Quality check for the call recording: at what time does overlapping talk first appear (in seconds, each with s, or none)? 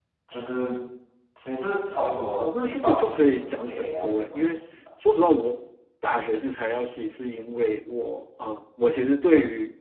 2.4 s